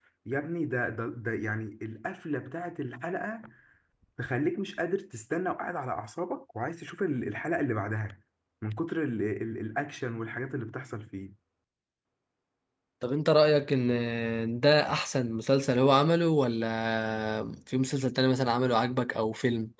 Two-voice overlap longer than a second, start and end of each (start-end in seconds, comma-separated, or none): none